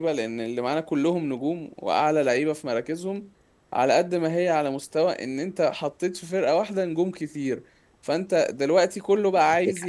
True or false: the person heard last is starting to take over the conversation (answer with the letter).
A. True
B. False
B